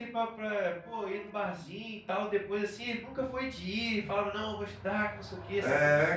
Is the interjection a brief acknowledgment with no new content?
No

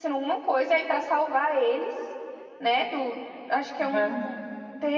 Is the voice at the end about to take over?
No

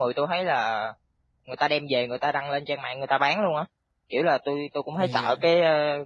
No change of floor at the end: Yes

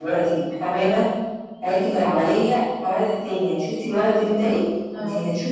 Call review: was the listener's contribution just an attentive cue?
Yes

